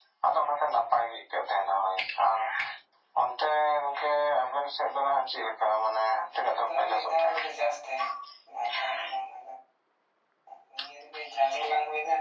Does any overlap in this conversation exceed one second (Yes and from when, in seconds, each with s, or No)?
Yes, from 6.2 s